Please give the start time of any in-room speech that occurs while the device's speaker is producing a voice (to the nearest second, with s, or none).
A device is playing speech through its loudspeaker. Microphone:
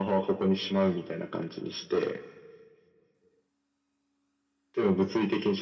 none